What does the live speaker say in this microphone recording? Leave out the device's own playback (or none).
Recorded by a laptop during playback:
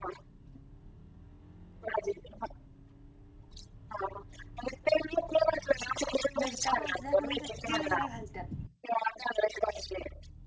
मिरच्या भाजल्या का नाही त्यात तीळ जरा घालतात.